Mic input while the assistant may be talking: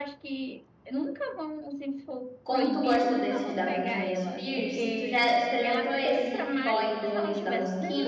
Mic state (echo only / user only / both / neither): both